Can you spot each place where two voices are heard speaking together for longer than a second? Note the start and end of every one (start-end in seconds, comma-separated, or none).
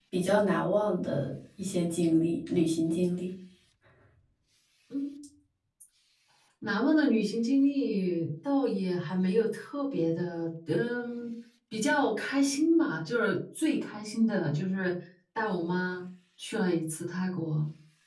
none